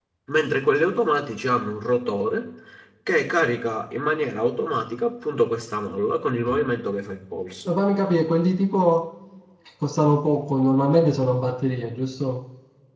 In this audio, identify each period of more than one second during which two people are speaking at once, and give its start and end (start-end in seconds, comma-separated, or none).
none